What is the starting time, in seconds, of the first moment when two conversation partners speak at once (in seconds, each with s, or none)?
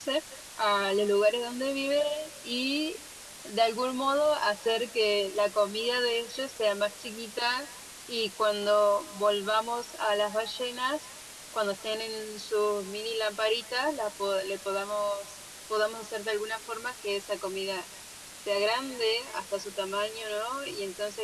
none